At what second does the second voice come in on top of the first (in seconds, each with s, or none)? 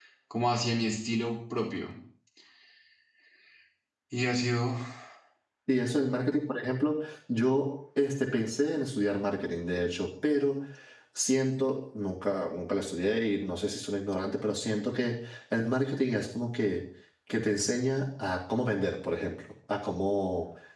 none